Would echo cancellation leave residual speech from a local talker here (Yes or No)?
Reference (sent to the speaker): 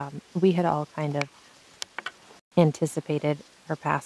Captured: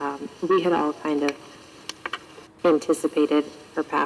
No